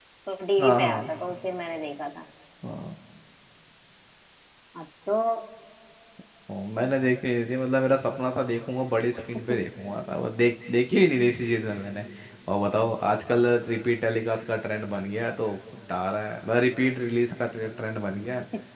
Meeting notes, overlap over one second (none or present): none